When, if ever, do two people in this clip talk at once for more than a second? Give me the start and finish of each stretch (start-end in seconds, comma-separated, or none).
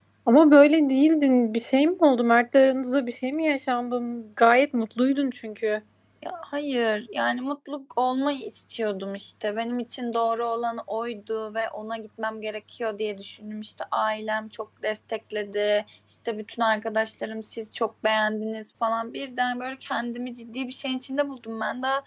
none